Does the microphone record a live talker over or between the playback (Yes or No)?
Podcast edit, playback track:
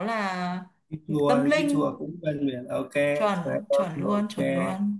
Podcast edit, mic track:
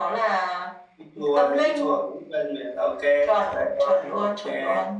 No